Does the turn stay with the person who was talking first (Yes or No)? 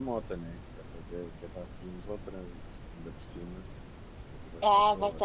No